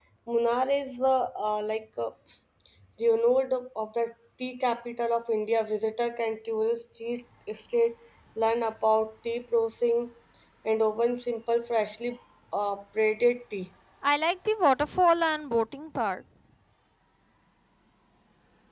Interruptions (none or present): none